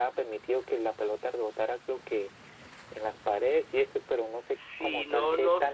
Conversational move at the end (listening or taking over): taking over